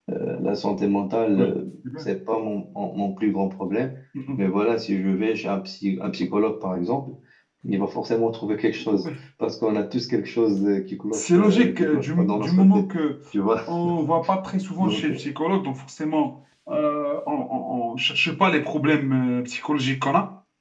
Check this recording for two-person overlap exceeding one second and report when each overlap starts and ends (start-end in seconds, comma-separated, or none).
11.1-12.8